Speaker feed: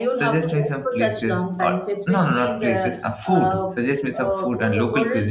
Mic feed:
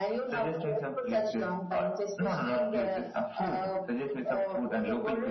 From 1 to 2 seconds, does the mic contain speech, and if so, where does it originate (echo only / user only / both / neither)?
echo only